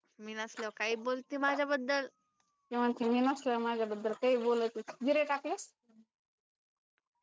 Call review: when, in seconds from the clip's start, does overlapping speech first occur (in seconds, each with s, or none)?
none